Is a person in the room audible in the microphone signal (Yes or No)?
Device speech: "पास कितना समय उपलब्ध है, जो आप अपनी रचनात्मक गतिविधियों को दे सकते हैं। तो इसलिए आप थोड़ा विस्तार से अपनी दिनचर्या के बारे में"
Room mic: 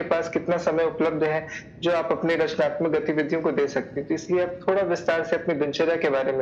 No